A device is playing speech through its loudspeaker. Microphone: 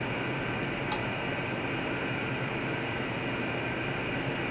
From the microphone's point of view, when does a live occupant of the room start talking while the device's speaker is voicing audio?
none

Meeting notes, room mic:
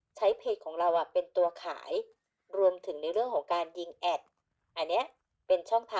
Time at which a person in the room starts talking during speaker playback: none

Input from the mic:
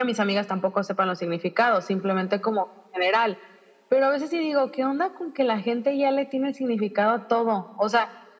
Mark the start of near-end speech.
none

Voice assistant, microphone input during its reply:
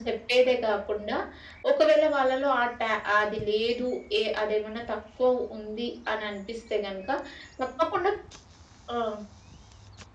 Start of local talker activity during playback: none

